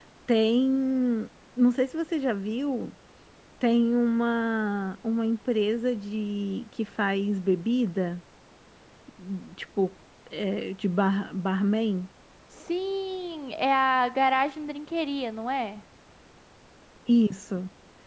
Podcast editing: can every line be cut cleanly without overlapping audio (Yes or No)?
Yes